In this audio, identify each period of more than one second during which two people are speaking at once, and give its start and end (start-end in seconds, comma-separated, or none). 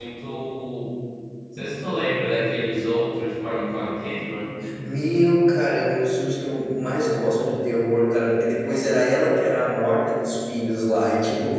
none